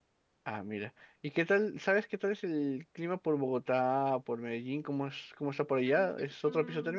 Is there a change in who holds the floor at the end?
Yes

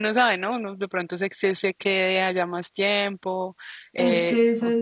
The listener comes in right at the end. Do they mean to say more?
Yes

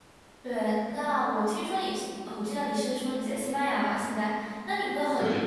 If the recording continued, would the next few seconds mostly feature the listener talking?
No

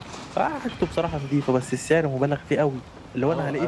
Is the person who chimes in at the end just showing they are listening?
No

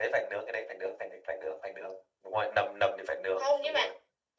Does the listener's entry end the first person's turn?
Yes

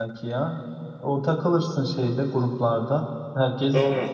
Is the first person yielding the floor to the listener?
No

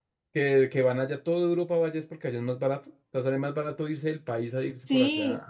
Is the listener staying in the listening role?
No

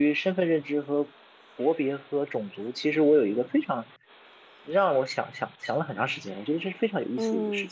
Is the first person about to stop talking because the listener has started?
Yes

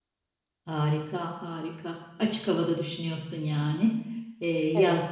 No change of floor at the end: Yes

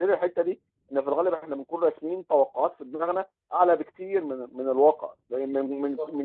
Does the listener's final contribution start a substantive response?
No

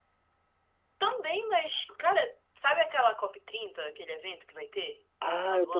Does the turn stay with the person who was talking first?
No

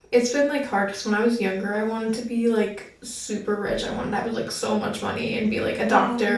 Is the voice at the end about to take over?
No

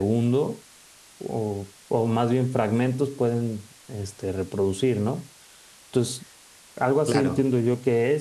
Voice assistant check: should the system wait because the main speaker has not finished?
Yes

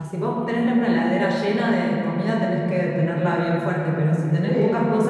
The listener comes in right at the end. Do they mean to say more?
No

